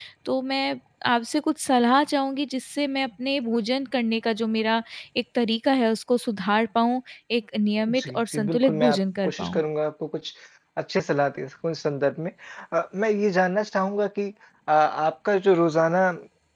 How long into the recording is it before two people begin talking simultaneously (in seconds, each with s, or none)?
7.9 s